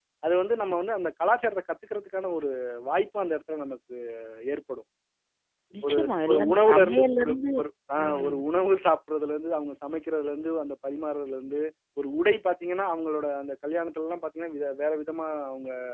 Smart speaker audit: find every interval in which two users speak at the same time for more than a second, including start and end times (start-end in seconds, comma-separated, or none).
5.8-7.4